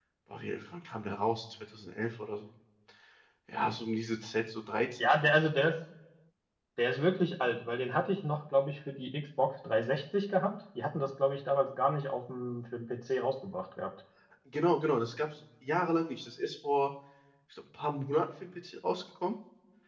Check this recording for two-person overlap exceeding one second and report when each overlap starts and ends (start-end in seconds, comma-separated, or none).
none